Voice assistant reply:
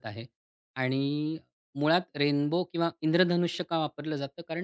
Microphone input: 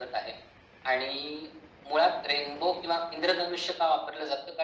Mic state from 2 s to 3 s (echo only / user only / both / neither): echo only